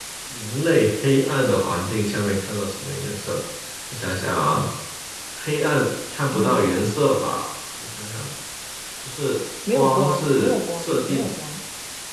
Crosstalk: present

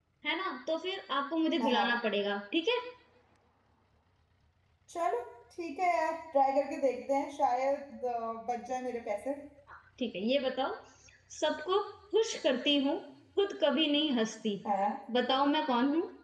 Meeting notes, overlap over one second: none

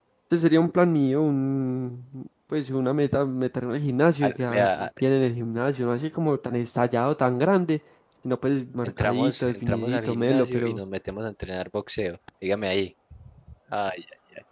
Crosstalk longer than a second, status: present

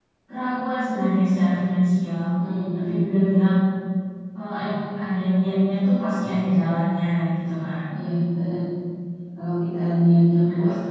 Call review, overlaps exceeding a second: none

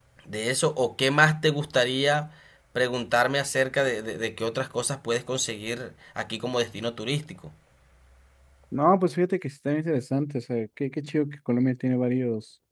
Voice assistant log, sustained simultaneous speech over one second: none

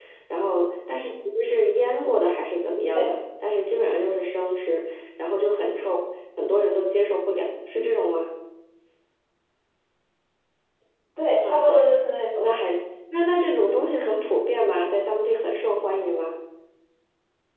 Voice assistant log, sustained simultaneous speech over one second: none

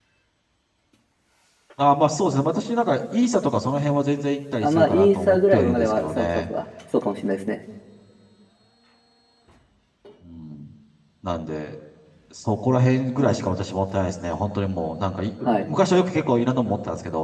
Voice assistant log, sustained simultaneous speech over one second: present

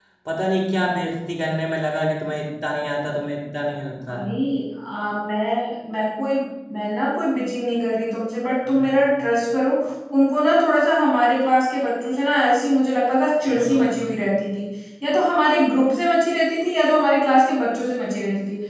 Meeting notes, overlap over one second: none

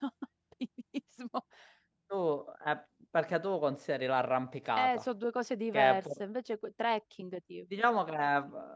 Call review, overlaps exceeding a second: none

